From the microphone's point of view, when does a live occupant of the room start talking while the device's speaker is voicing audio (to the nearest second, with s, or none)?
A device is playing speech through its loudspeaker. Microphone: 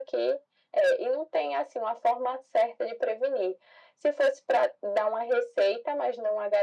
none